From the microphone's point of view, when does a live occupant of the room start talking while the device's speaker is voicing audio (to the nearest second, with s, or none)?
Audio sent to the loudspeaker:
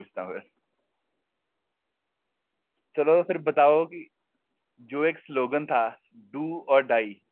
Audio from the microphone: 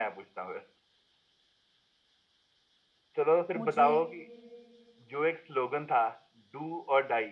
4 s